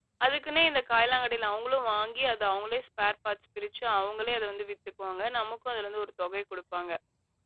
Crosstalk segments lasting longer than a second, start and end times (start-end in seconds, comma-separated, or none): none